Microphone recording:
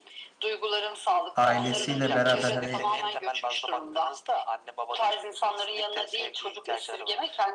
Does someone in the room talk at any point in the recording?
Yes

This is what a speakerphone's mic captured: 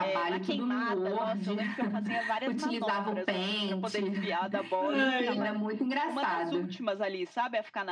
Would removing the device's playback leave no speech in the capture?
No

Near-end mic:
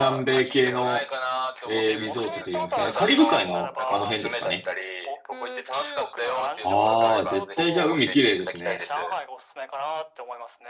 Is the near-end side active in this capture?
Yes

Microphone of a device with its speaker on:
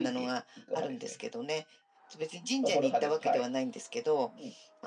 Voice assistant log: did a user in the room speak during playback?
No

